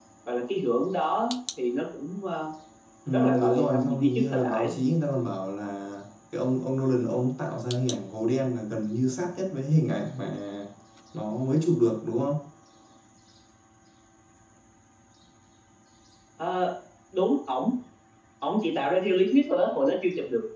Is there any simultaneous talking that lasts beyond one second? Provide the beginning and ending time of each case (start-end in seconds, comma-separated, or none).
3.1-4.7